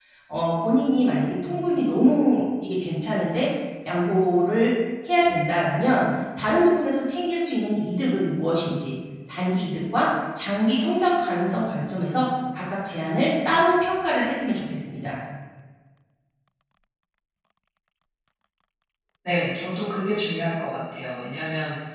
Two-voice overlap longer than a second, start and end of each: none

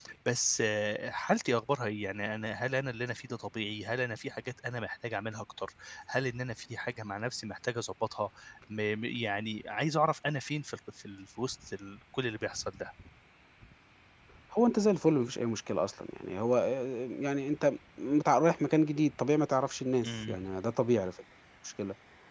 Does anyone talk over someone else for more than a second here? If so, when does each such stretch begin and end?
none

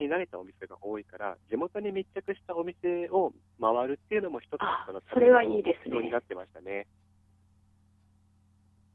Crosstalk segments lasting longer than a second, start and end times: 4.7-6.2

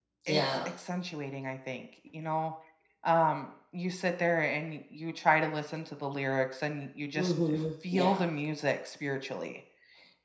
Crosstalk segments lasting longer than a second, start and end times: none

